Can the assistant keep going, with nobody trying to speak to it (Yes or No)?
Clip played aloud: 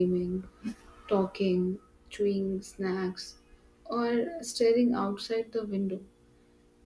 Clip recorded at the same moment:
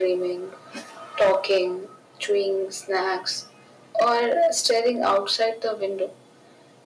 Yes